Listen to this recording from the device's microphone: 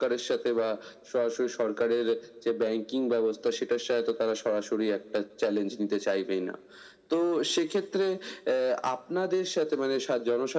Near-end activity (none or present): none